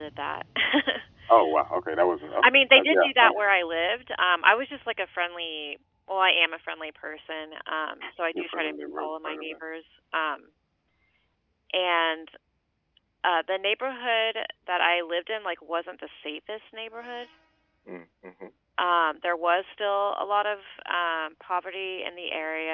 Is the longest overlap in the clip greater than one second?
Yes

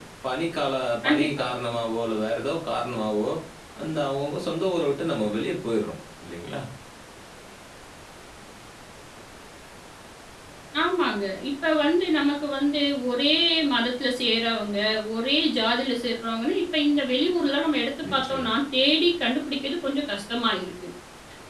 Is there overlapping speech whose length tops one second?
No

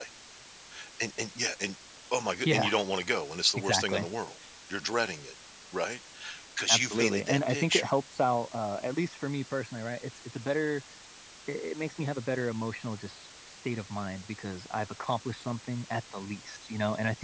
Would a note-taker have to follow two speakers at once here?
Yes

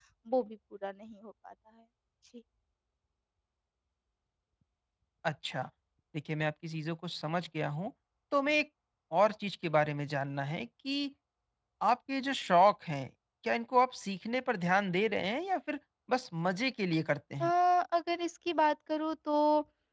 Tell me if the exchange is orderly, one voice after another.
Yes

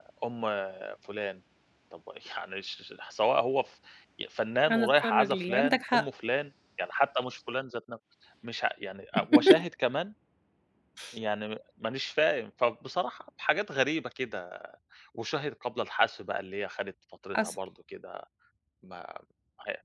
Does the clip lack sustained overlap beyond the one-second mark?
No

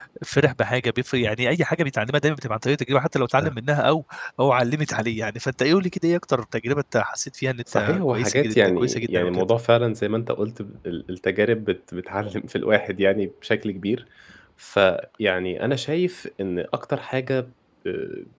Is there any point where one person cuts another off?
Yes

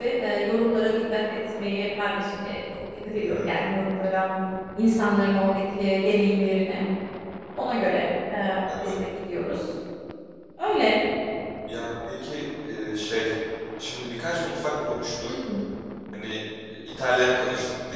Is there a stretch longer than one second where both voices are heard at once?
No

